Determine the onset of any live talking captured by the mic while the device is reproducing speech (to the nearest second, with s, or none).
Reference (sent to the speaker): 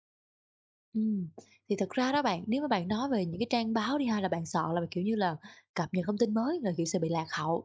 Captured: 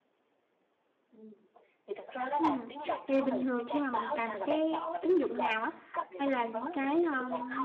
2 s